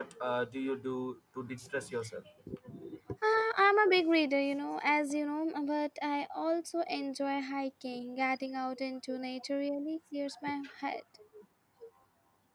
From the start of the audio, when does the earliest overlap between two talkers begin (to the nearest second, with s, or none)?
none